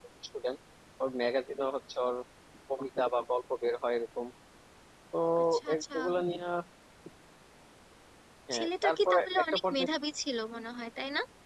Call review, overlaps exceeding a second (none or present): present